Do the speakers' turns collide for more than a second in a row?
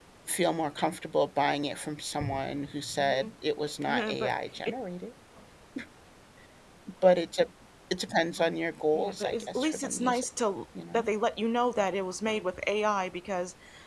Yes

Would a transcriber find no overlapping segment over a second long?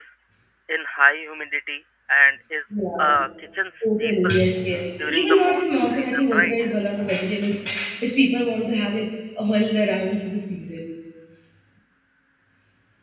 No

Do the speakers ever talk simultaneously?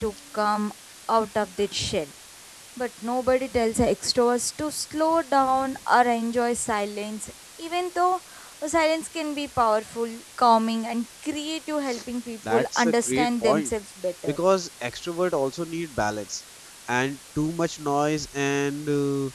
Yes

